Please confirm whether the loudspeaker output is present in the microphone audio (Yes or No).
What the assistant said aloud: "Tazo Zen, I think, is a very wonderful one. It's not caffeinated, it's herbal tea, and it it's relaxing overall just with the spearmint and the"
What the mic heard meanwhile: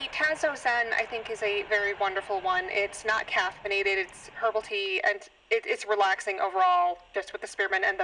Yes